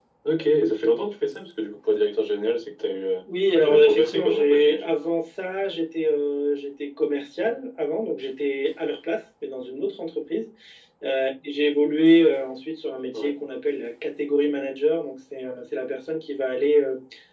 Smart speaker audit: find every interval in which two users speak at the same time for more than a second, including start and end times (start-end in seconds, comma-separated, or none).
3.6-4.9